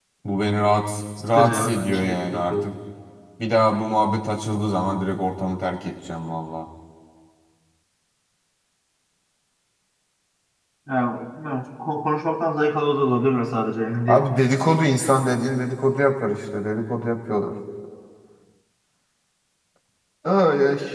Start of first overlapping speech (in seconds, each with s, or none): 1.4 s